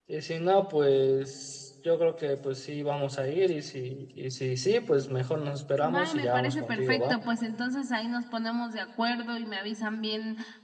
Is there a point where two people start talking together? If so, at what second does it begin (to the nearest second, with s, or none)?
6 s